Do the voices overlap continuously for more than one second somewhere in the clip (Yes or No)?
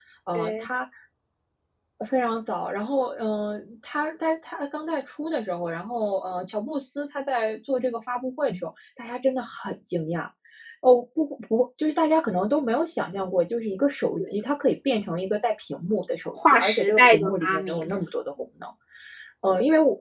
Yes